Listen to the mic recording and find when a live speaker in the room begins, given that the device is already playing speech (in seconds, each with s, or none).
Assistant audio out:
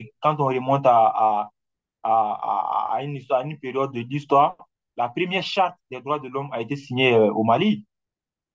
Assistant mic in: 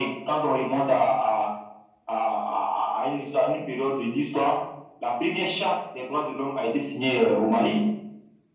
none